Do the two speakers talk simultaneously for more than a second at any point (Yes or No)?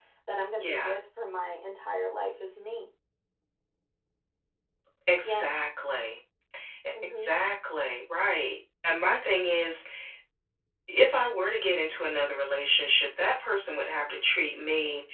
No